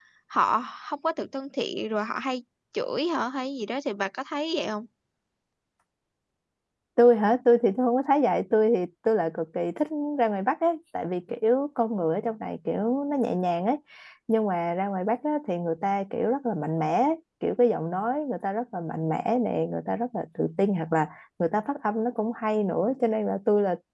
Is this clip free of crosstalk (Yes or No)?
Yes